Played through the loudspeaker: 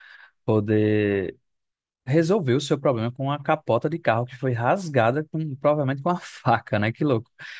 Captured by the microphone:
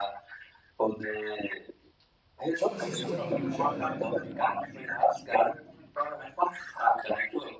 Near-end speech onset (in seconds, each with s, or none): 2.5 s